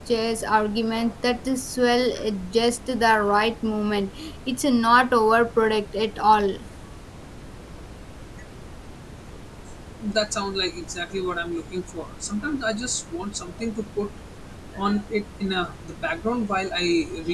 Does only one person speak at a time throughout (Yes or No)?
Yes